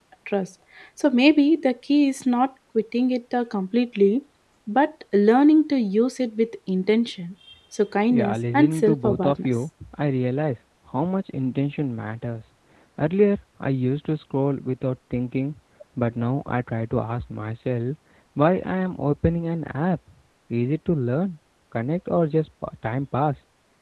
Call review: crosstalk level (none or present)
present